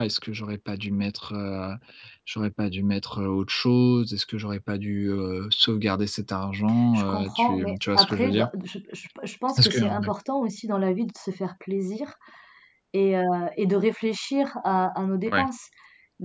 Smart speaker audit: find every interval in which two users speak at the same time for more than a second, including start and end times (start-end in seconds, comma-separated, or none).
6.9-8.5